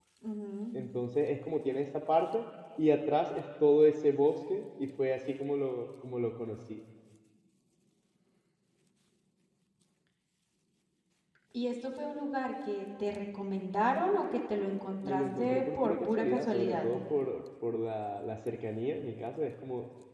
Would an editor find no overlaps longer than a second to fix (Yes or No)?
No